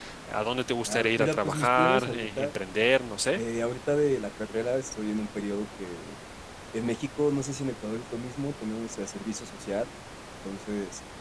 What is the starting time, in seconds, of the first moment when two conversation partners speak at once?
0.9 s

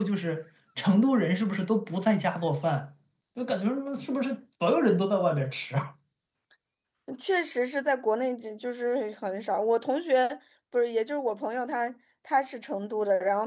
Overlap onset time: none

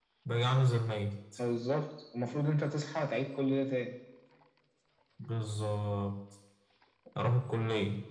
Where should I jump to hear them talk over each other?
none

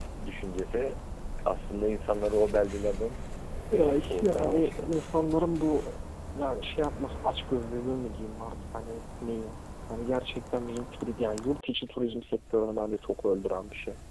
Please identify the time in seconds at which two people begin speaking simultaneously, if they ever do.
3.7 s

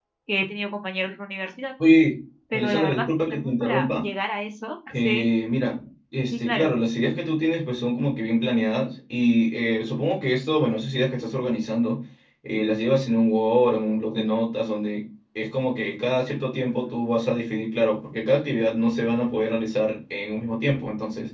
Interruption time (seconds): 2.5 s

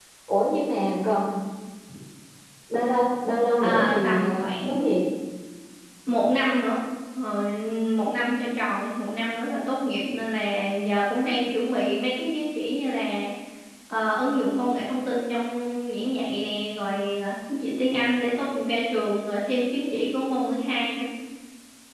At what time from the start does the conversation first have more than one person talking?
3.6 s

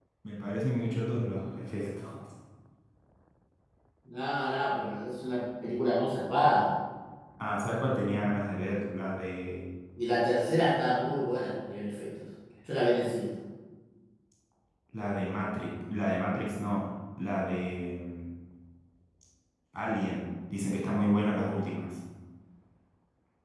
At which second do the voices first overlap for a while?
none

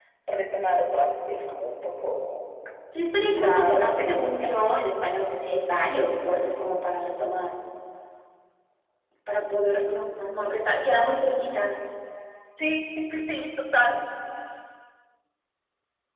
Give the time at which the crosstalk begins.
3.3 s

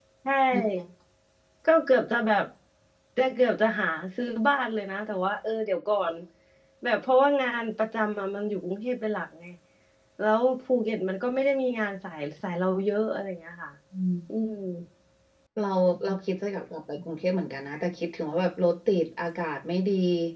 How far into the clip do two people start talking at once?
none

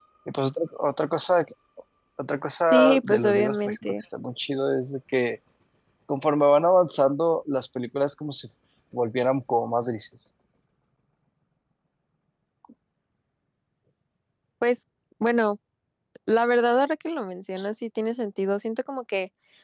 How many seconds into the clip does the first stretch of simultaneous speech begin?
2.7 s

